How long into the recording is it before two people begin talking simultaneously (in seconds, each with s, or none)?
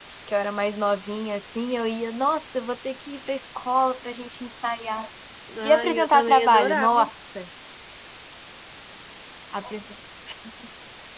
5.6 s